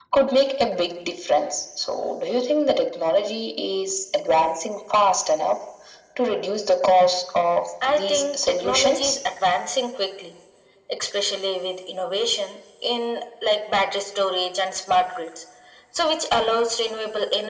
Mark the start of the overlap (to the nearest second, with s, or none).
8 s